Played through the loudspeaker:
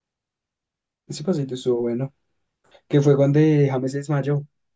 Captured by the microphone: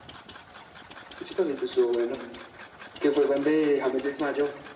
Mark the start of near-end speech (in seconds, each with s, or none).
none